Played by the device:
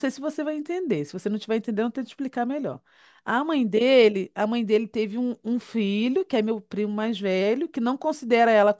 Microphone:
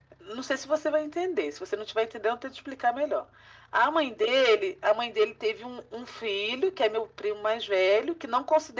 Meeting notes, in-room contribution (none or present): none